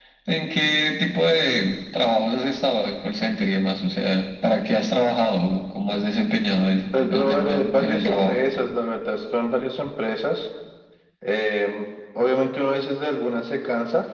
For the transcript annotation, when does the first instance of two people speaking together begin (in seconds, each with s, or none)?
6.9 s